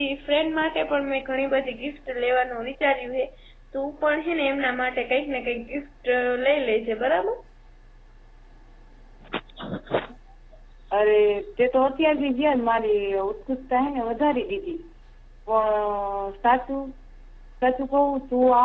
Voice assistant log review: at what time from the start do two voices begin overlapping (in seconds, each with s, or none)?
none